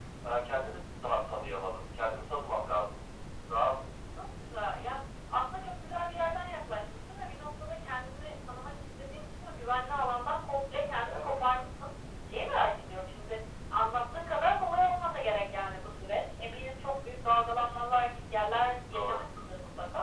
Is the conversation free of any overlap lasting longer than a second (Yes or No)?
Yes